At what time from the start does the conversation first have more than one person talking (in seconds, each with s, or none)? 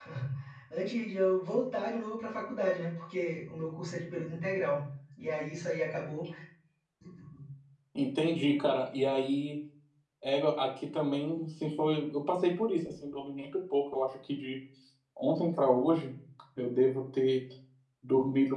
none